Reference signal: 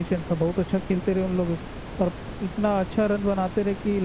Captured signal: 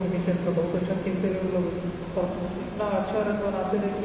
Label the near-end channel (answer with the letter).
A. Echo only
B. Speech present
A